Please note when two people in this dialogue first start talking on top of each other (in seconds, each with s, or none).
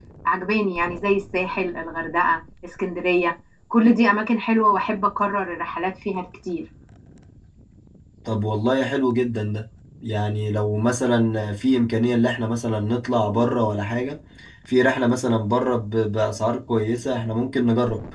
none